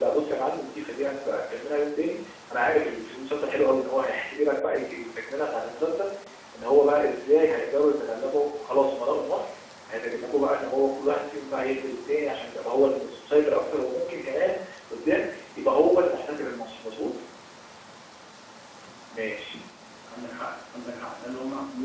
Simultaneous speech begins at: none

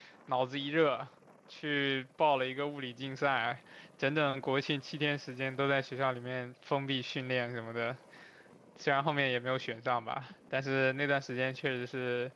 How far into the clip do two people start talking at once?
none

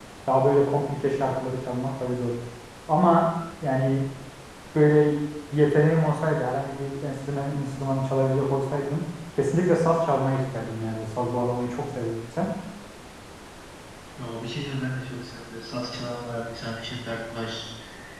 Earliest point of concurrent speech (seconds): none

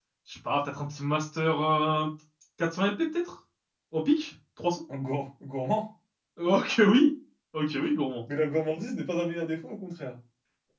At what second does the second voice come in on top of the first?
none

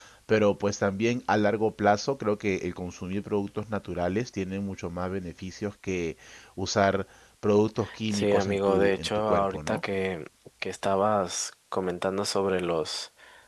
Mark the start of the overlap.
8.1 s

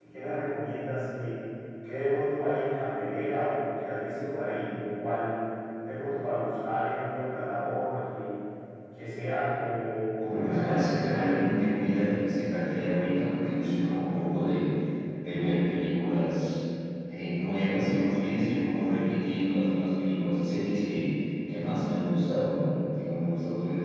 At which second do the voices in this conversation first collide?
10.2 s

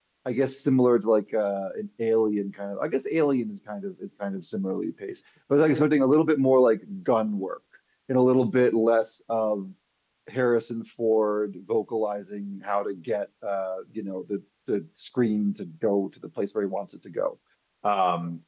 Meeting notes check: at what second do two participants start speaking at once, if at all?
none

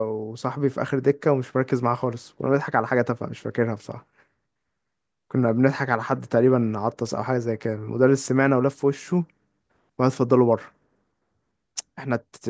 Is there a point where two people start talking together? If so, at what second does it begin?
none

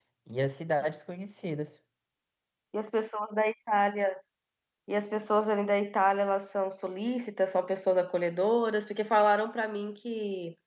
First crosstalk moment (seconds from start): none

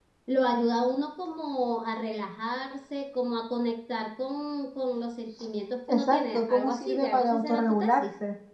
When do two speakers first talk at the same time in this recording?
5.9 s

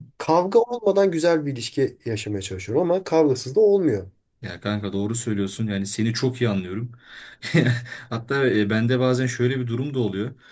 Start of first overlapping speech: none

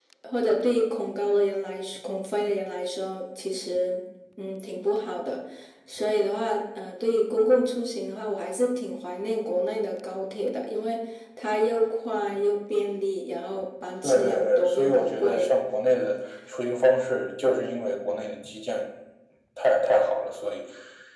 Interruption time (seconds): 14.0 s

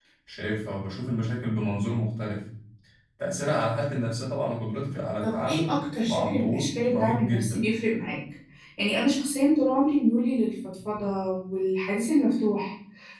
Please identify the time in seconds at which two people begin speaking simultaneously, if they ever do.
5.2 s

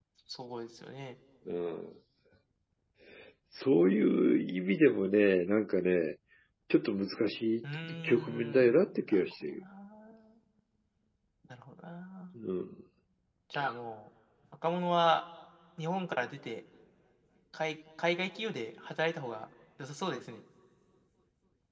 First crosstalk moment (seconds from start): 7.6 s

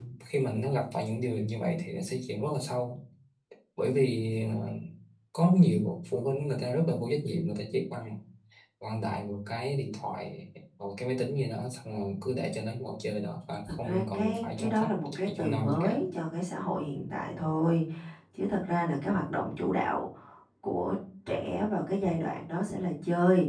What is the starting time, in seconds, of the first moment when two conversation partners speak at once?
13.9 s

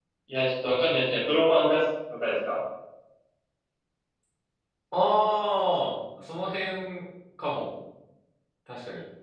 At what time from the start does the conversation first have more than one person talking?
none

